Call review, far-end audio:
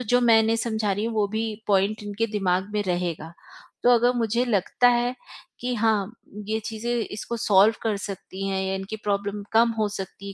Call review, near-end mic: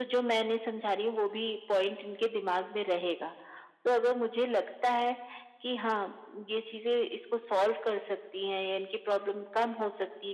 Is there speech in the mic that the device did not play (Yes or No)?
No